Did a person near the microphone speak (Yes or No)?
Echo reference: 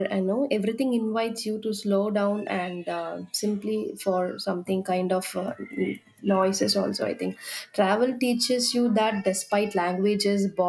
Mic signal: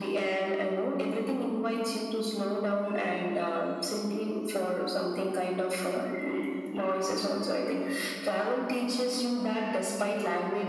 No